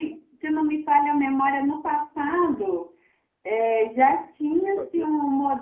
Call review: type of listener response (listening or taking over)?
listening